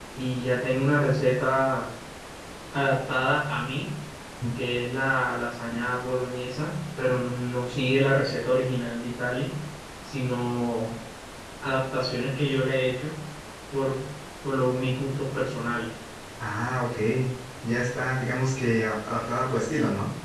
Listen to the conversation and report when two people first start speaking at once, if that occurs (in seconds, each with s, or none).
none